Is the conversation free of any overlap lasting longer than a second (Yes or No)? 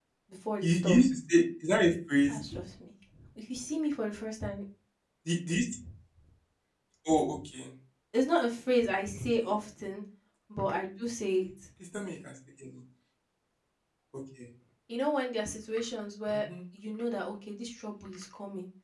Yes